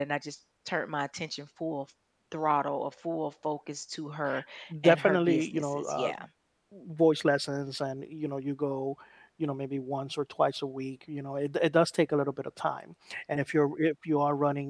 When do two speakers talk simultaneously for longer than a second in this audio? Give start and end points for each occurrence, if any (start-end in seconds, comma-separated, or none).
4.8-6.1